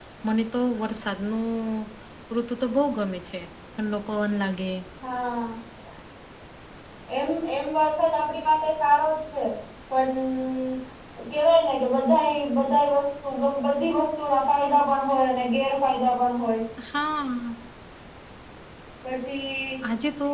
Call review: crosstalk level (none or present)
none